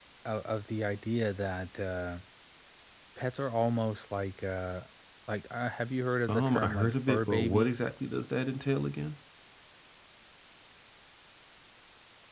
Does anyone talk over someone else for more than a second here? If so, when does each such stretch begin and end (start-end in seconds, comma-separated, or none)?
6.3-7.9